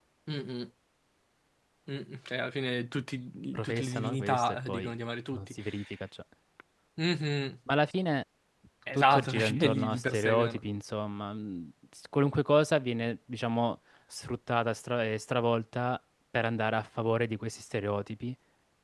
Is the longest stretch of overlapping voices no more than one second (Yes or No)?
No